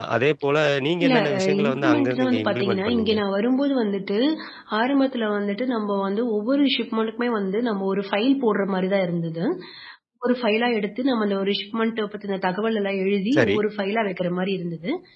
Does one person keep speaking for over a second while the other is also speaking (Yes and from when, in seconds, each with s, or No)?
Yes, from 1.0 s